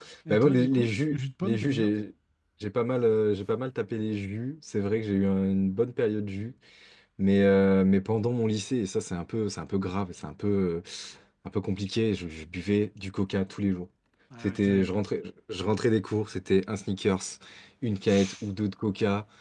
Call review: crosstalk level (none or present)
present